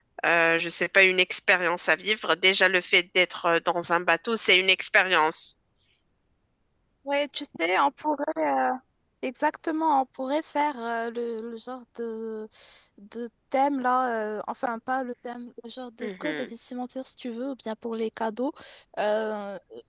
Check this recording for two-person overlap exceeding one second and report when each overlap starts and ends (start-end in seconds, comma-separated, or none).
none